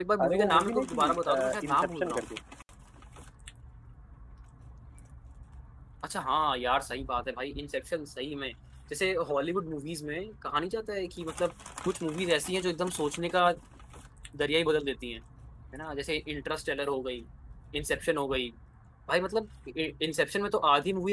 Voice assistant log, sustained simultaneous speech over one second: present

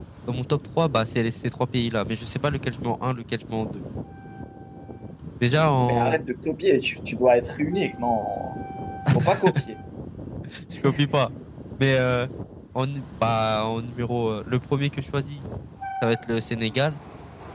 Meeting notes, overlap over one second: none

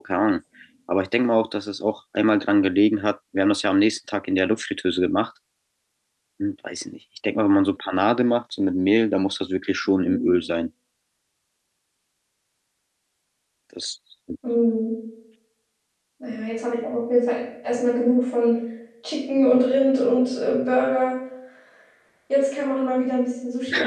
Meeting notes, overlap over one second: none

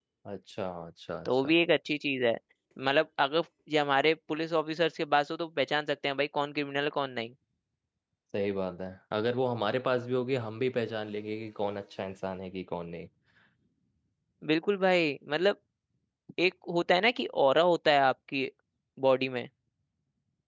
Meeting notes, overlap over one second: none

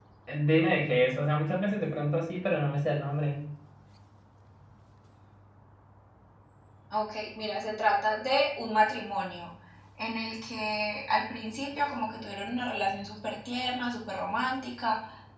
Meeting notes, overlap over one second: none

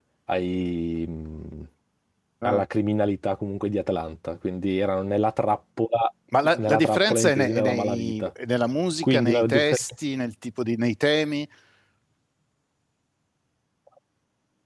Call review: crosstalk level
present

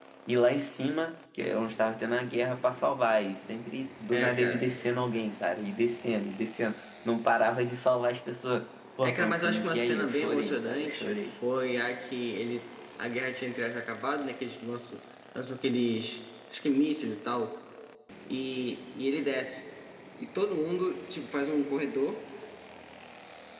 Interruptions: present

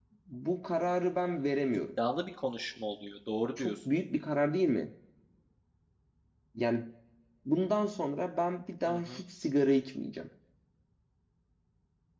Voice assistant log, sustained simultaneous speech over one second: none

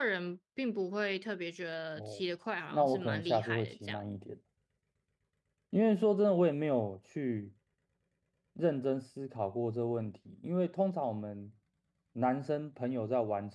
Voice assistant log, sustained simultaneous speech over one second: present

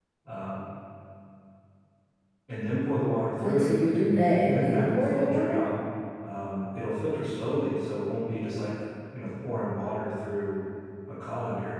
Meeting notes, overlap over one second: present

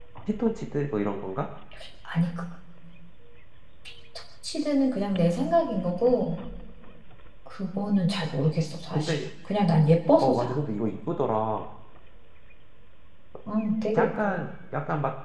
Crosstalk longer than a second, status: none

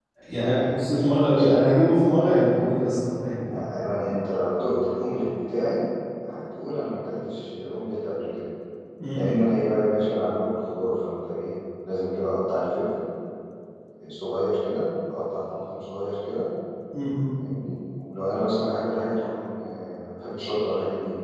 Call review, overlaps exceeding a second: present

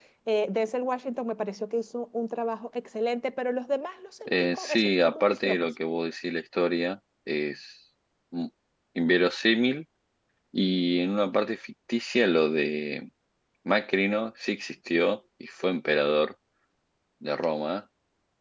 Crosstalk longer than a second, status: present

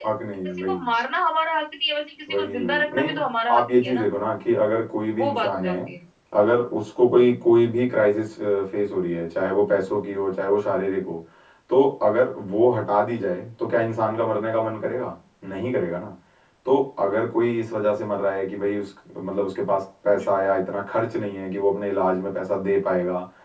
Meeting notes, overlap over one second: present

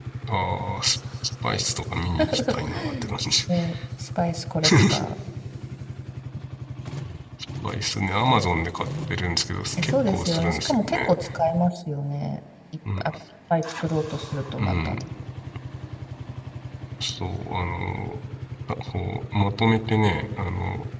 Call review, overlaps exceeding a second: present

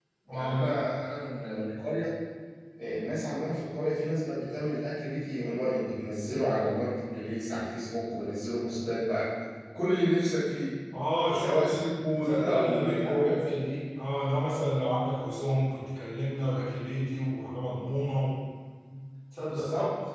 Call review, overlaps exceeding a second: present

